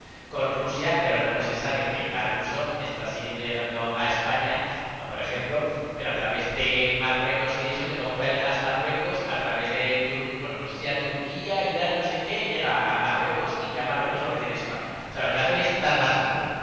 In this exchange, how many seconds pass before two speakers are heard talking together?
none

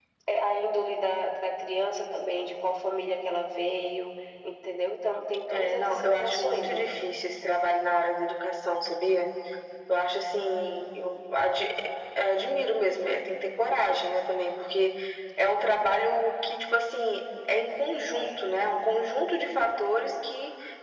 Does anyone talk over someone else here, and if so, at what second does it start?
5.5 s

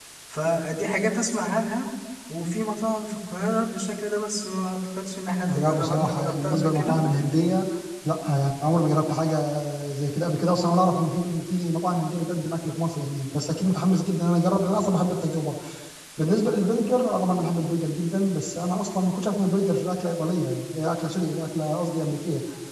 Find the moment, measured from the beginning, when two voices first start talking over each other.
5.5 s

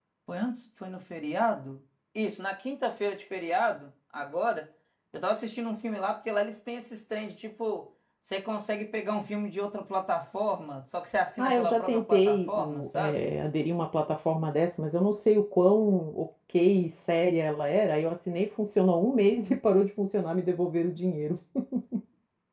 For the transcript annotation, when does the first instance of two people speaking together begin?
11.4 s

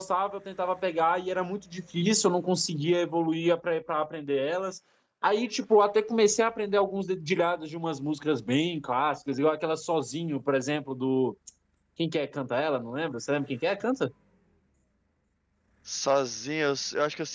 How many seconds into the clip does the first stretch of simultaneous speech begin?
none

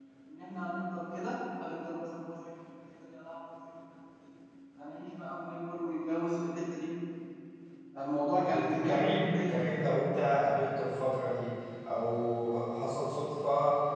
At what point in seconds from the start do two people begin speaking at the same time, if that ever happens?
8.4 s

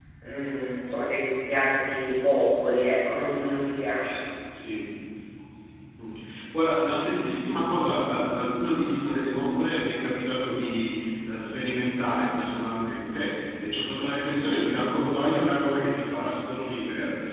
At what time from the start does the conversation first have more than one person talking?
none

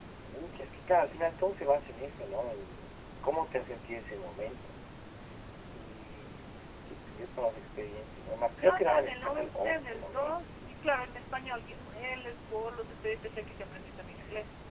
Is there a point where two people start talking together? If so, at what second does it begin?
8.6 s

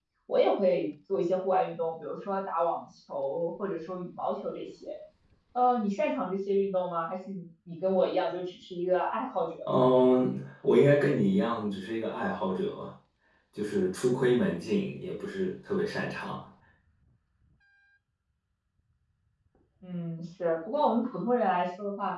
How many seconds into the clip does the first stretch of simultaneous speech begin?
none

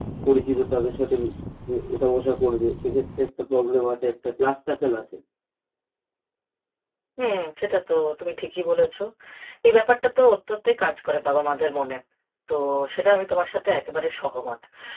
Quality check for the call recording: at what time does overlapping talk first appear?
none

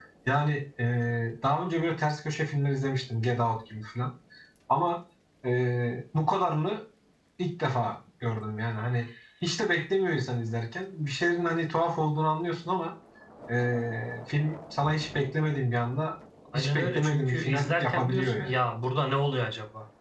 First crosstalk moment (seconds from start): 16.5 s

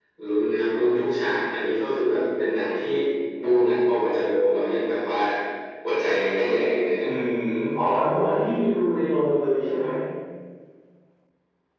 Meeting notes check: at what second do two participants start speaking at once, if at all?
none

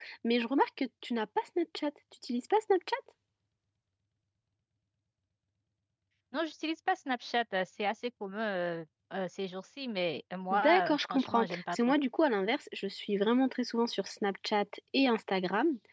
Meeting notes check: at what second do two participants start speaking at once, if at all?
10.5 s

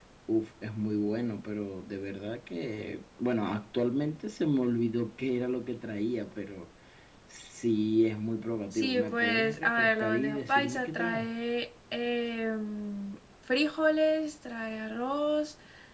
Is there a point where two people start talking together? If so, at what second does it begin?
8.7 s

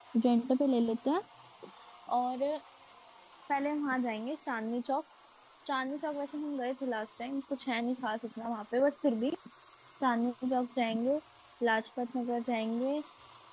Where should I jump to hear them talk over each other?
none

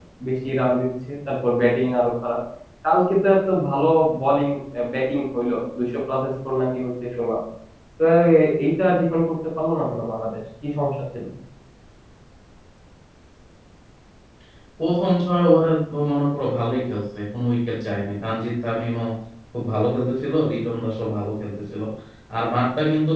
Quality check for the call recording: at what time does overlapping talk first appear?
none

